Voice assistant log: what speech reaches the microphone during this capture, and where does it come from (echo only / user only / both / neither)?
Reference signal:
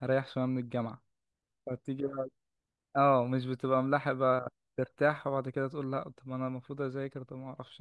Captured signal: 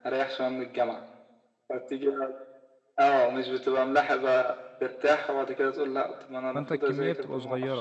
both